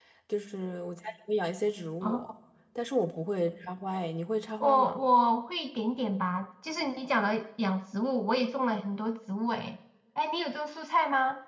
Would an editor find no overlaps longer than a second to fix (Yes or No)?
Yes